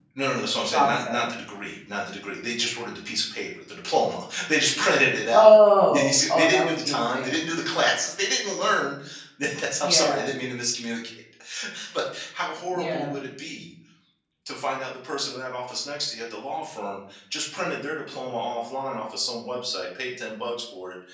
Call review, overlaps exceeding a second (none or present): present